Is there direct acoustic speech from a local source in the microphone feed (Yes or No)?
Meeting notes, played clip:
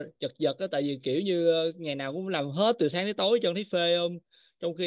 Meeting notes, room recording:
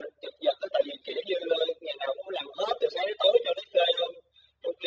No